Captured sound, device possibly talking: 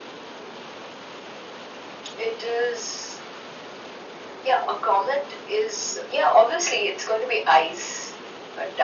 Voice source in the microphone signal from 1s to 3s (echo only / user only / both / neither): echo only